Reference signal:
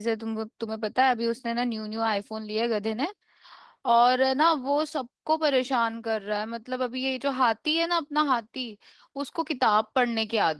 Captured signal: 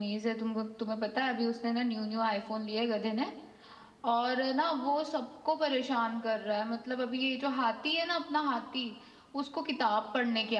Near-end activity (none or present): none